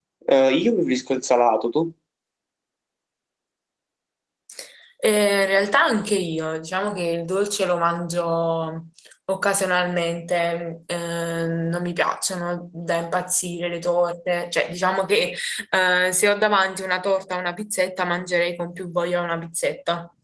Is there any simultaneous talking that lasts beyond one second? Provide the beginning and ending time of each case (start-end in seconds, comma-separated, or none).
none